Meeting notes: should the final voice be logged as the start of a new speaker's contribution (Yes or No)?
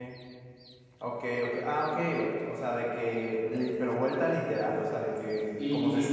No